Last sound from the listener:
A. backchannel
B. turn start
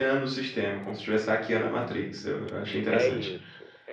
B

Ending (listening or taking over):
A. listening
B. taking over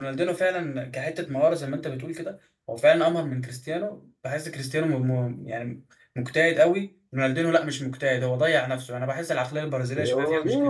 B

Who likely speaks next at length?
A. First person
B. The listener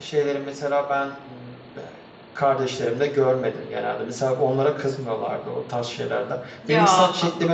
A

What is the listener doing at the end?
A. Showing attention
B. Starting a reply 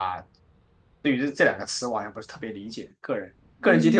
B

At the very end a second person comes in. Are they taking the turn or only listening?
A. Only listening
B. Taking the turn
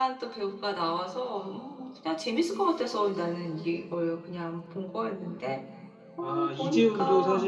B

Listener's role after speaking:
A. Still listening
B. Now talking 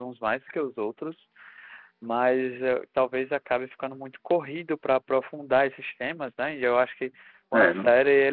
A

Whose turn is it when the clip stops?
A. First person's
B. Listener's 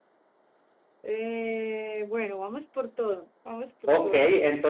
B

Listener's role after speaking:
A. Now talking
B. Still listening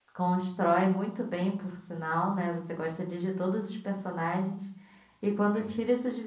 B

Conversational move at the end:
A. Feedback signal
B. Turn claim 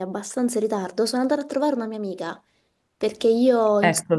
A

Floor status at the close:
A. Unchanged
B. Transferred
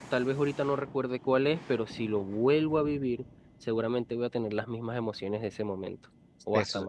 B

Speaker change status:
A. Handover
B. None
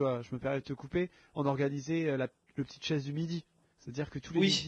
B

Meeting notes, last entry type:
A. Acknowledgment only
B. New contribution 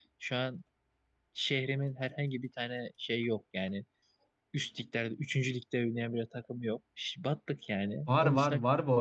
B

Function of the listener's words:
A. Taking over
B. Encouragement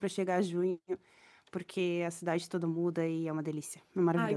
A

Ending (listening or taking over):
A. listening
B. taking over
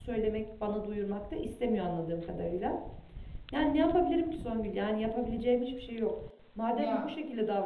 A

